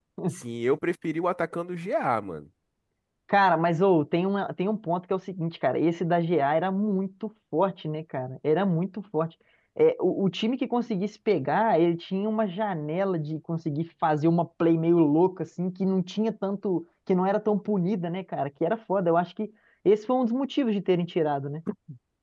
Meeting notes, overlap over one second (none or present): none